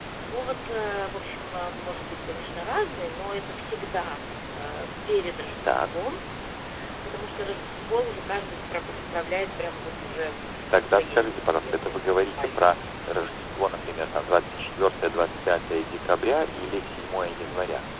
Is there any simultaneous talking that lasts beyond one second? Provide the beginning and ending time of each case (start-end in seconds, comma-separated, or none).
10.7-12.6